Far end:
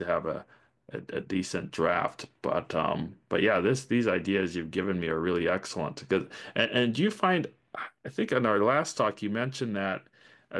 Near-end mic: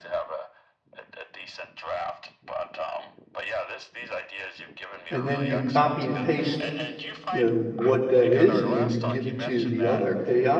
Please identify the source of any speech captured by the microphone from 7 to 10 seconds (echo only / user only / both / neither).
both